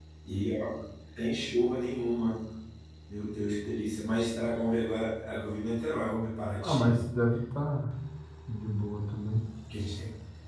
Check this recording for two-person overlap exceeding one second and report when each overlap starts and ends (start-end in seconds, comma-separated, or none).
none